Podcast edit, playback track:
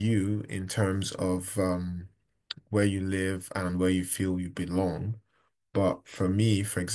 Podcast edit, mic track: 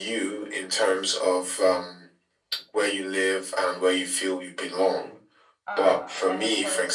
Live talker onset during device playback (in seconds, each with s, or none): 5.7 s